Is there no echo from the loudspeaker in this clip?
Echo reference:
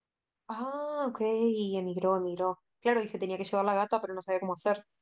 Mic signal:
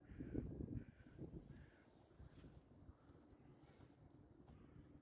Yes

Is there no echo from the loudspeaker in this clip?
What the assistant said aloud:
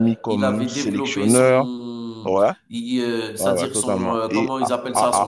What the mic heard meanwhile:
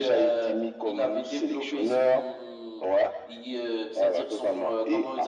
No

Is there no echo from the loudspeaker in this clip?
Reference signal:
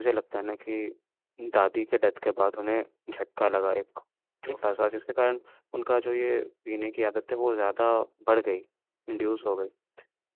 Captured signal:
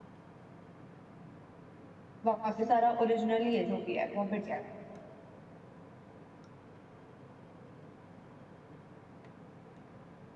Yes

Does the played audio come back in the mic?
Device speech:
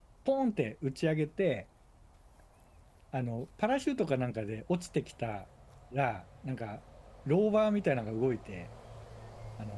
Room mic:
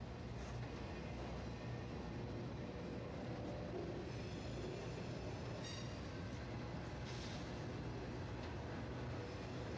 No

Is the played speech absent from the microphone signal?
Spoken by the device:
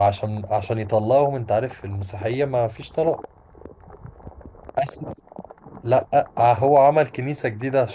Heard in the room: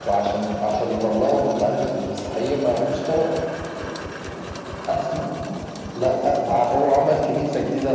No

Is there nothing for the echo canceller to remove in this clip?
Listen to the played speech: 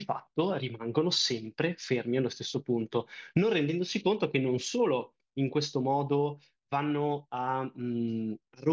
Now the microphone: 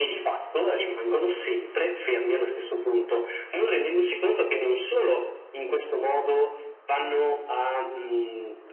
No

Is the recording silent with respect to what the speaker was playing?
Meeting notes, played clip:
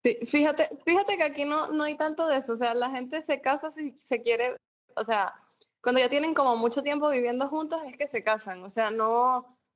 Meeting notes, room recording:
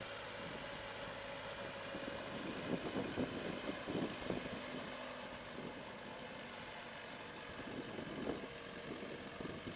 Yes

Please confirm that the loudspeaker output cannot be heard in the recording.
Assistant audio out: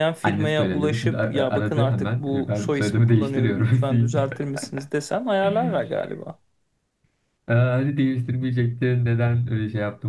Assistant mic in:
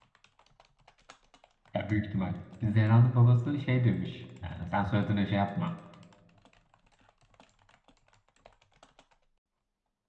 Yes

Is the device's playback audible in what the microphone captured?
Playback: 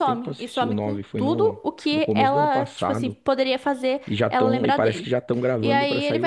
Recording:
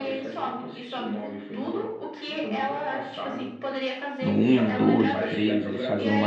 Yes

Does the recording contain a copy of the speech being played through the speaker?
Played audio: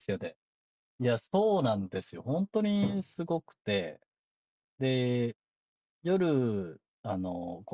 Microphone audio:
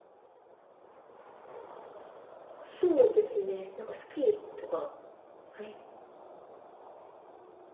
No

